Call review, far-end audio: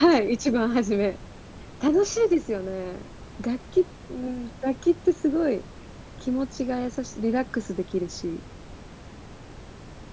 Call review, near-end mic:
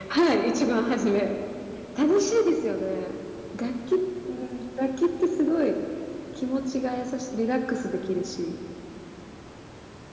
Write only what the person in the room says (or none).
none